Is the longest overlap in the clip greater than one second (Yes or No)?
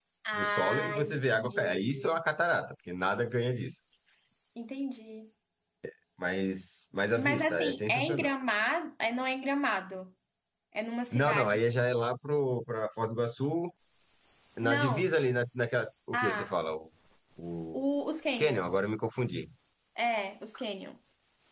Yes